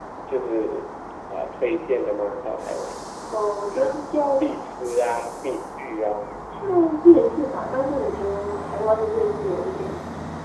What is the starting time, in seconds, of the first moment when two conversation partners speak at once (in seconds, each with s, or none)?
none